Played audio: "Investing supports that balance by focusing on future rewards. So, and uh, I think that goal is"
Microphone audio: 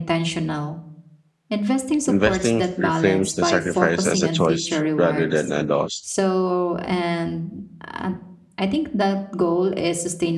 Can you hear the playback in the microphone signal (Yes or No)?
Yes